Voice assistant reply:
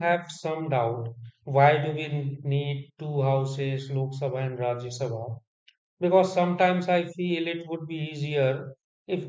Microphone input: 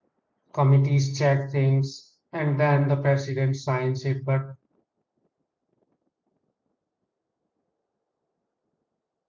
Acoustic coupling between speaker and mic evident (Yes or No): No